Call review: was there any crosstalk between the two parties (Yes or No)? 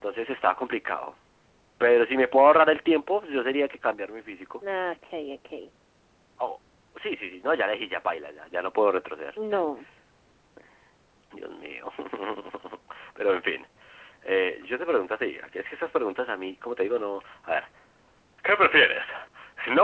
No